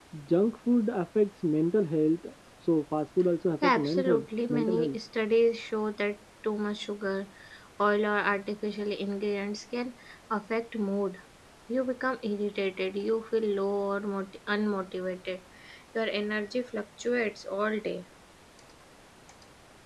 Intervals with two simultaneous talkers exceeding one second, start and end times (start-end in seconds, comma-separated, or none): 3.6-5.0